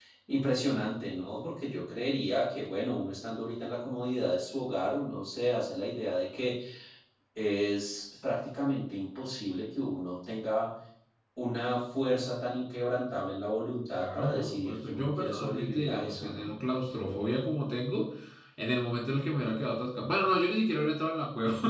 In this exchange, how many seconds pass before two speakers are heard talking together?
14 s

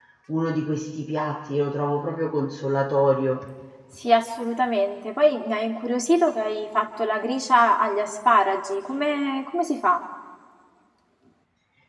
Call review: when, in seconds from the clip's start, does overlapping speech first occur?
none

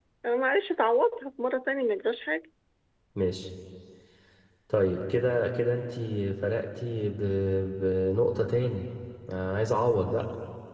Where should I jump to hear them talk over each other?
none

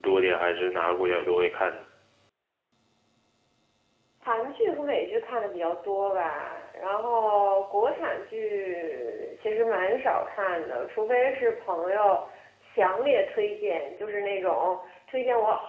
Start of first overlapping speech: none

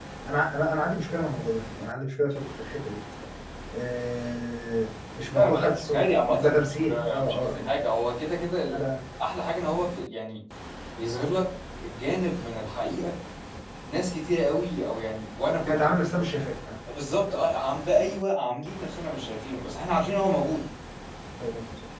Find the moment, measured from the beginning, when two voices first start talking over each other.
5 s

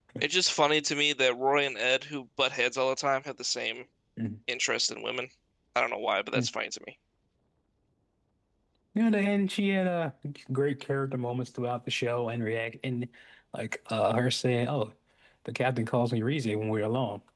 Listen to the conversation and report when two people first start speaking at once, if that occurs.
none

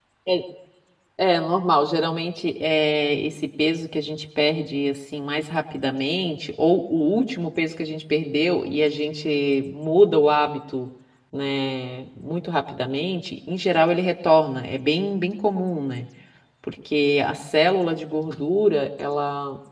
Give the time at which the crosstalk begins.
none

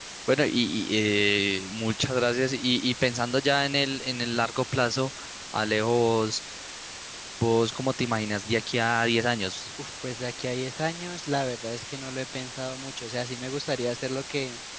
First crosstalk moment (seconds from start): none

